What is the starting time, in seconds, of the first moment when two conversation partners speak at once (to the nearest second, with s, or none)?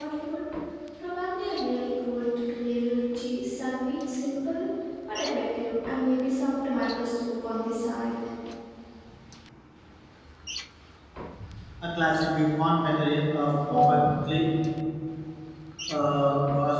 none